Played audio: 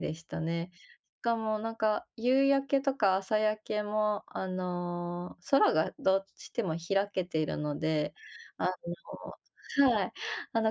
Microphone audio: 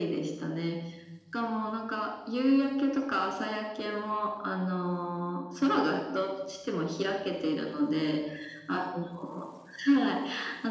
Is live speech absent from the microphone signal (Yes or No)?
Yes